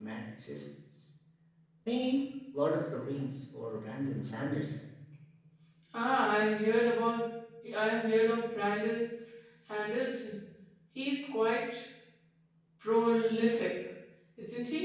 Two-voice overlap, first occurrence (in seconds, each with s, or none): none